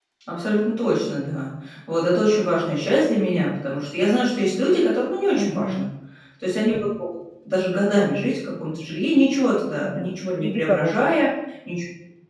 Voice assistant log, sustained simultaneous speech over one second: present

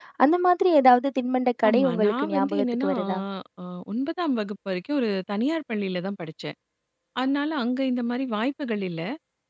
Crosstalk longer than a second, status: present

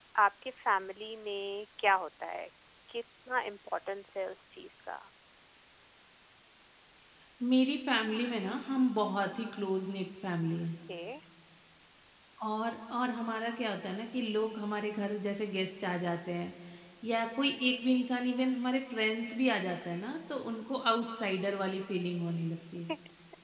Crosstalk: none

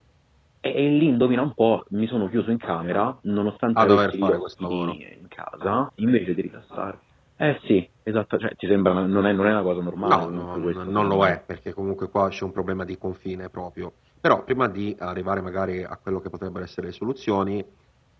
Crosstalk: present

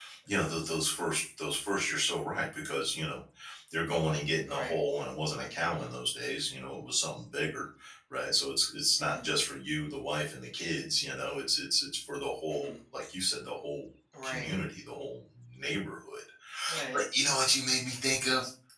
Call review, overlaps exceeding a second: none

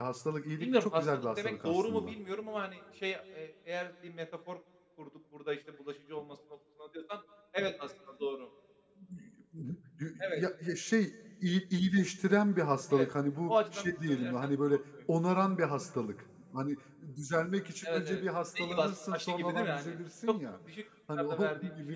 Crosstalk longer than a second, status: present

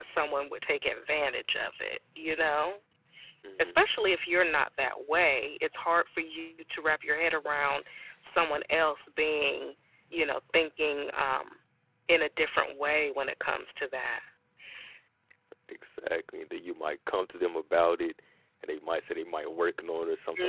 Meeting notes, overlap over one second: none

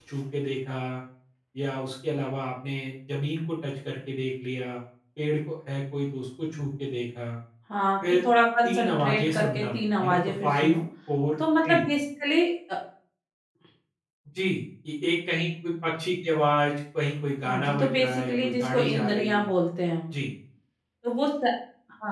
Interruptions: present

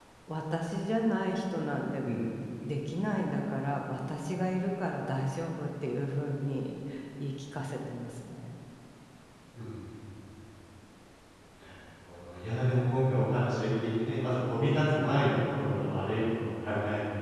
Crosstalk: none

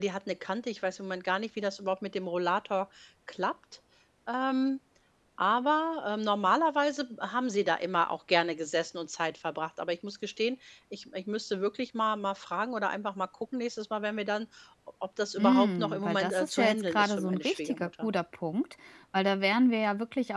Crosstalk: present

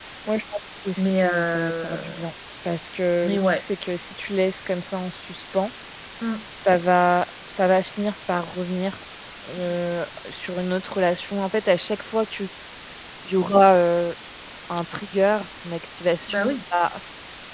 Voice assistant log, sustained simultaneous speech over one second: present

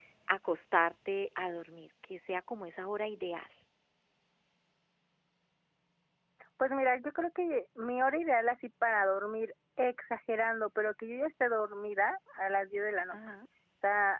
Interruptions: none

